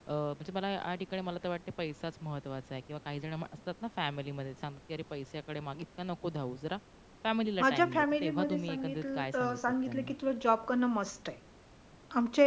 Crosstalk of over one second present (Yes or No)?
Yes